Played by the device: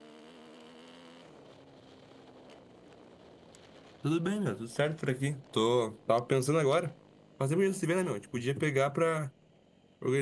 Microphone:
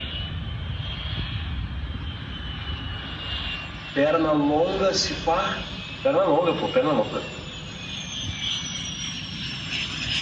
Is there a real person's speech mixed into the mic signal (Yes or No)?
Yes